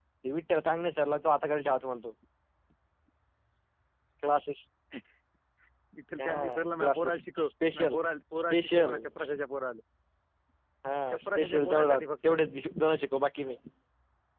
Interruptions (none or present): present